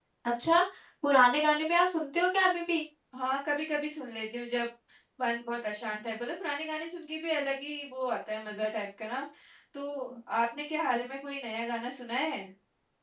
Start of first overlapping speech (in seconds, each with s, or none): none